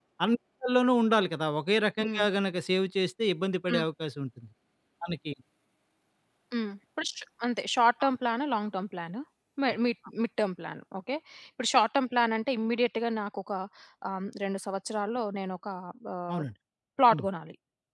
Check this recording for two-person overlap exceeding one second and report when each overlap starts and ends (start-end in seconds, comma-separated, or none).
none